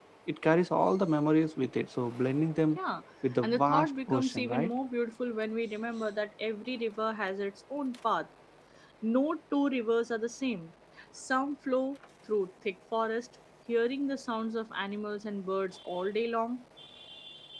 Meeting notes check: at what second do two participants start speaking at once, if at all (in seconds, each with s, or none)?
3.4 s